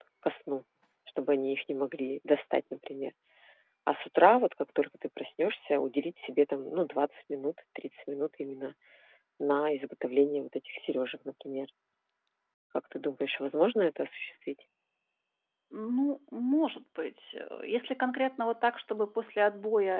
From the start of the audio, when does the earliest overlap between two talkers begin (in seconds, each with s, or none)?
none